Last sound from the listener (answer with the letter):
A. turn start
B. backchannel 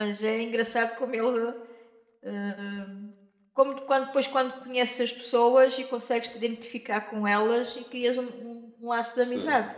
A